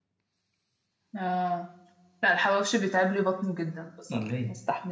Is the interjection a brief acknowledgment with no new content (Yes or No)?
Yes